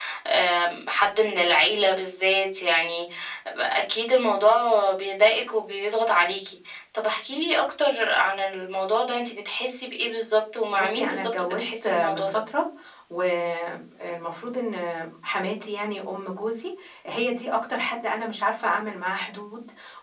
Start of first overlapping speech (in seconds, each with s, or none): 10.8 s